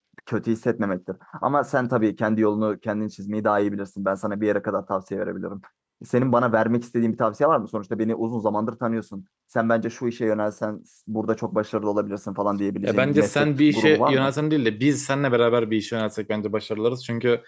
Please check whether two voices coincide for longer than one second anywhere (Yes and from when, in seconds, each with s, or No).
Yes, from 12.8 s